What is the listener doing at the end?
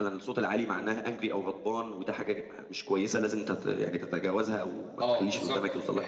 taking over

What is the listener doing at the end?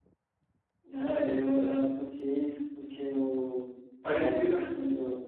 listening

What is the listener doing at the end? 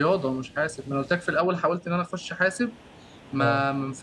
listening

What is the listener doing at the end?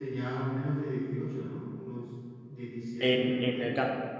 taking over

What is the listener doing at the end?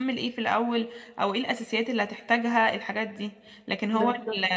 listening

